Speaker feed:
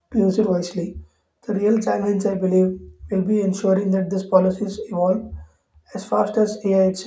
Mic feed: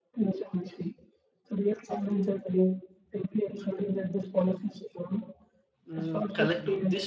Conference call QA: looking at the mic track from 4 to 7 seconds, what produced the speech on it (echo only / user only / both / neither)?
both